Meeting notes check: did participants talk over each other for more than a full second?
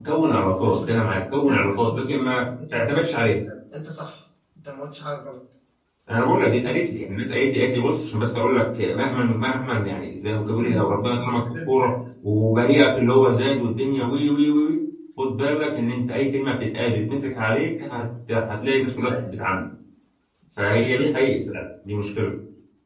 Yes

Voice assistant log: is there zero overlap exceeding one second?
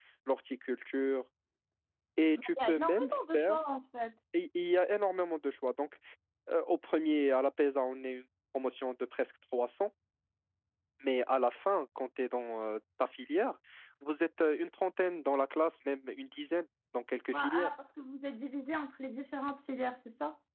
No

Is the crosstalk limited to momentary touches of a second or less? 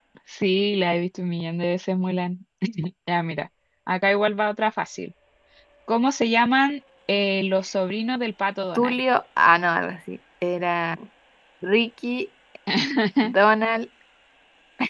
Yes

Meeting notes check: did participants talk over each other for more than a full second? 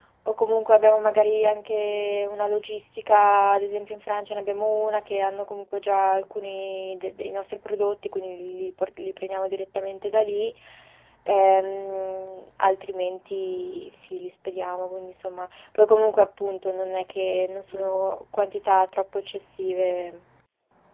No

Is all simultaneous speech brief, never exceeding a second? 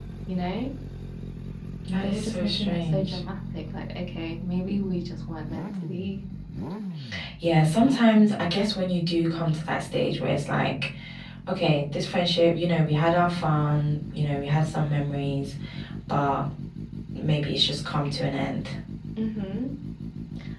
No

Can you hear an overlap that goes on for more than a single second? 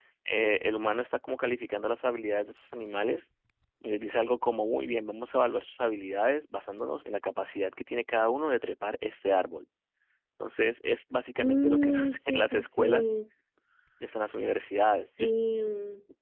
Yes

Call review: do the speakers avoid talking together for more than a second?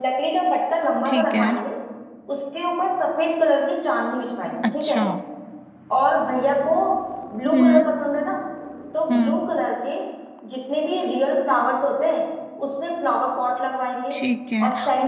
Yes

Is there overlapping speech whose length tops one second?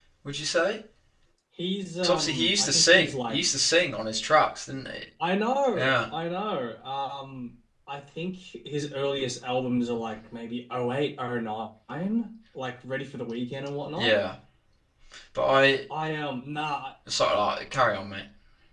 Yes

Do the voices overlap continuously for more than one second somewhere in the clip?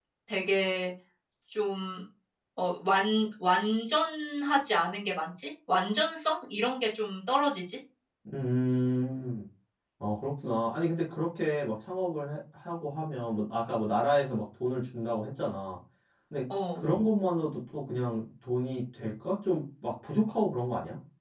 No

